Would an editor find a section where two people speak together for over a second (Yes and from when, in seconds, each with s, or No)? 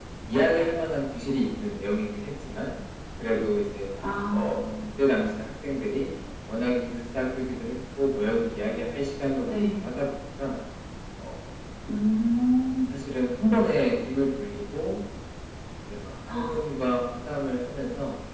No